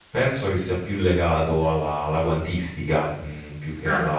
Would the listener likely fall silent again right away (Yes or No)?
Yes